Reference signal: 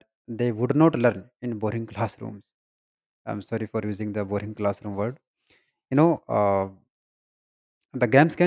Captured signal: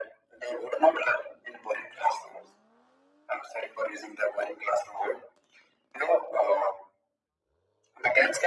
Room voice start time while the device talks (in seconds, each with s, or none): none